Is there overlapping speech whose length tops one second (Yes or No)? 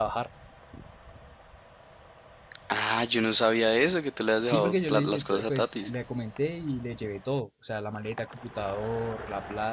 Yes